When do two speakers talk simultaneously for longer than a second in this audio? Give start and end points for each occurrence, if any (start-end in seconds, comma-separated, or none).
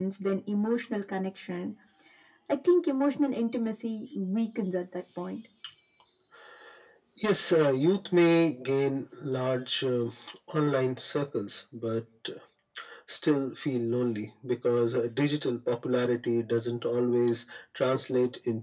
none